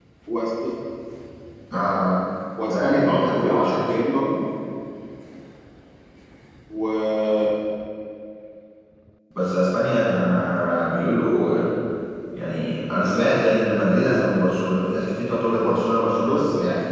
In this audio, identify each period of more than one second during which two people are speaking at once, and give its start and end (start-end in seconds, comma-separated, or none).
2.7-3.9